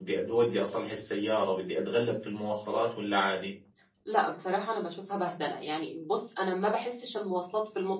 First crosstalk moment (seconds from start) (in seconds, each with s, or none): none